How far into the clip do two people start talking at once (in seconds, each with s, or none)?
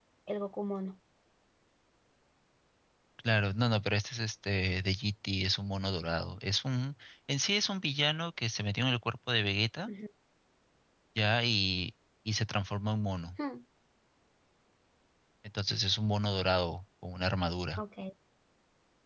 none